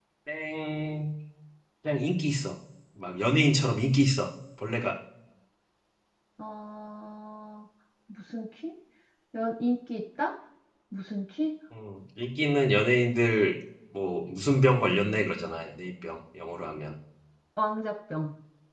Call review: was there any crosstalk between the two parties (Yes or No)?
No